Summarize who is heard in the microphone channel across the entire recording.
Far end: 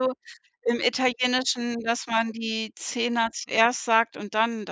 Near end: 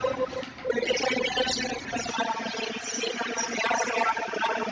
echo only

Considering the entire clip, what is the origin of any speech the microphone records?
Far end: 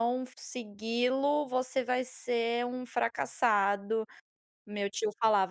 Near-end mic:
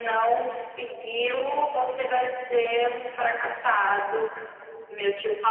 echo only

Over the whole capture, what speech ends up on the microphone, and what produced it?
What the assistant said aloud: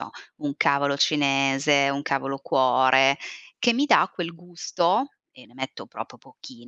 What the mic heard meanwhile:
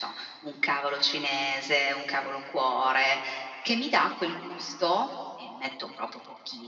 echo only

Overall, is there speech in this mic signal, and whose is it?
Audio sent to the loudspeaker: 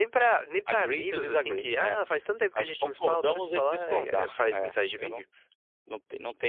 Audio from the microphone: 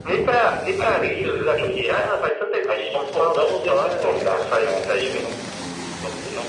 echo only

